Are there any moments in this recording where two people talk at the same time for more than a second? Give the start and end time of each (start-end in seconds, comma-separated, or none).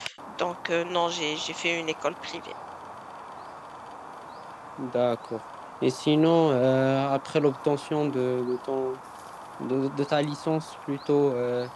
none